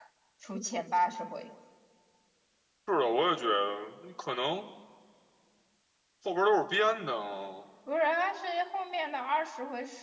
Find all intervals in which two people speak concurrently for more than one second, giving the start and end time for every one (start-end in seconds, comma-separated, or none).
none